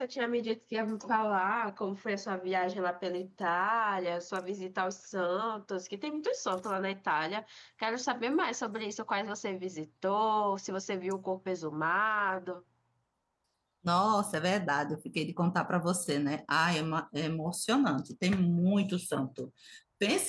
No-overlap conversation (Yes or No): Yes